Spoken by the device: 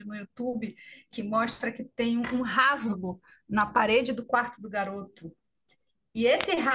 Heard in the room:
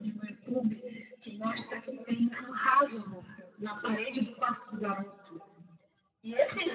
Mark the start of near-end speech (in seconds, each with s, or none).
none